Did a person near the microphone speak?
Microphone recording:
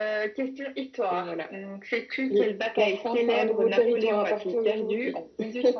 Yes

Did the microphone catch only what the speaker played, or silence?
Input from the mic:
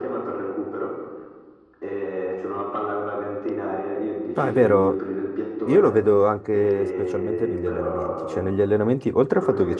No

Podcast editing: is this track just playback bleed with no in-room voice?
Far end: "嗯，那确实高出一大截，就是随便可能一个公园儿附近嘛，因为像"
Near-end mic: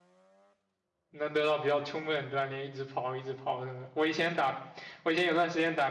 No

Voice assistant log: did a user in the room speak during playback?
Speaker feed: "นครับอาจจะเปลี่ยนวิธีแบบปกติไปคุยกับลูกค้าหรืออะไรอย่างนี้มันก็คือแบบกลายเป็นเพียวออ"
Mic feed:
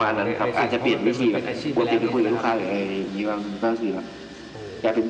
Yes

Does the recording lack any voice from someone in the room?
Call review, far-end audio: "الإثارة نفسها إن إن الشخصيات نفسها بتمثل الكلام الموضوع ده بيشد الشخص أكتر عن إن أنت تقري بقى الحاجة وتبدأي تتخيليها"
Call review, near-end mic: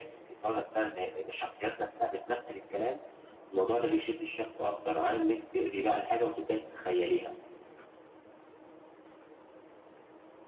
Yes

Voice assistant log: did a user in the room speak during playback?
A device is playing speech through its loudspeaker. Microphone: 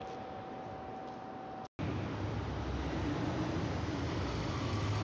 No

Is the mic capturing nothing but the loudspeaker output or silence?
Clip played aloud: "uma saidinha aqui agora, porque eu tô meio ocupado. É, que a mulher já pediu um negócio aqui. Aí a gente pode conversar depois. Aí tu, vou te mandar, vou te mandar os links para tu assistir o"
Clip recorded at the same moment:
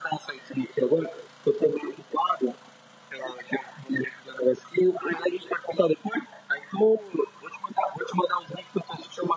Yes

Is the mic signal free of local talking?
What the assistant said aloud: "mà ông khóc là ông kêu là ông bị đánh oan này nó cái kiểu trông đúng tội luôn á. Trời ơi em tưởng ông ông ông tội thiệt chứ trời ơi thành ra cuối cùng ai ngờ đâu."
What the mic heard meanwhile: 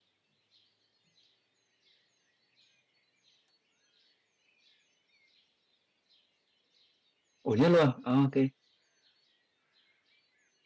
No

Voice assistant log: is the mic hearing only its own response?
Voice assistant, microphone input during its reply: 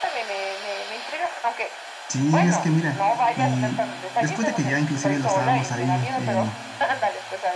No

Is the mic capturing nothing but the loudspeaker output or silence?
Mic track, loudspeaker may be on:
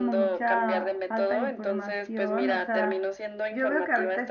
No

